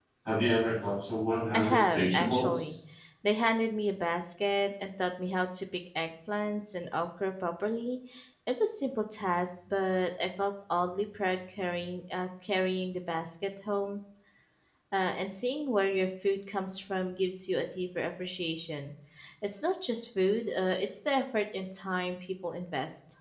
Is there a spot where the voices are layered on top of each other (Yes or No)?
Yes